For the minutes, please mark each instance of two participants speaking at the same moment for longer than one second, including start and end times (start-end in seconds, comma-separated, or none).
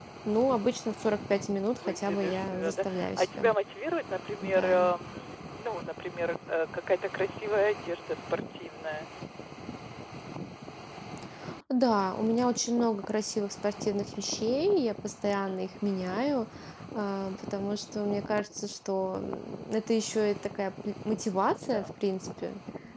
1.7-3.5